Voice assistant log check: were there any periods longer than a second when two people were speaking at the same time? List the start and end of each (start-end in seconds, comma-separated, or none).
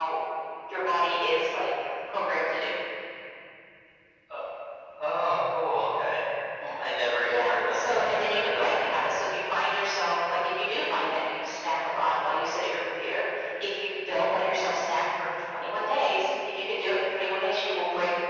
7.3-8.7